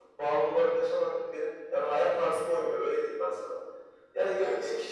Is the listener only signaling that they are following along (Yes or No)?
Yes